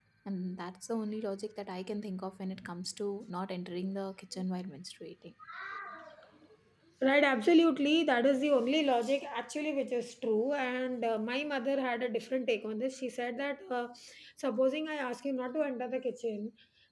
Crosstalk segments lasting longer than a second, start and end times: none

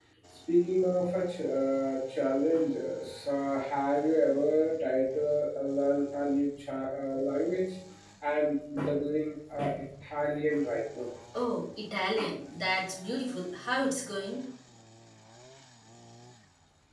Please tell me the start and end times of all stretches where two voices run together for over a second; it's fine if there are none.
none

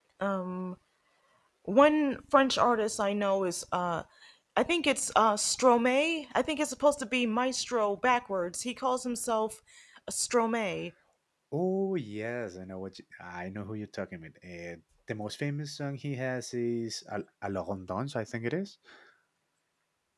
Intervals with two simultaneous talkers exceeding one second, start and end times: none

